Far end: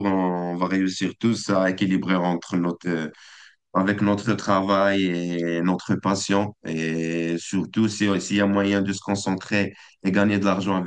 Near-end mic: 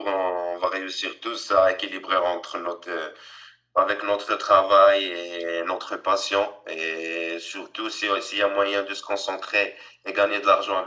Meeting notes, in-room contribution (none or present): none